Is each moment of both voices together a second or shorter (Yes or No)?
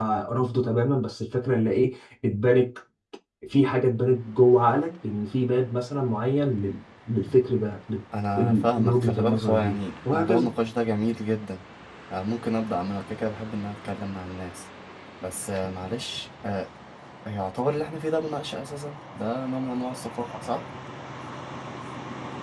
No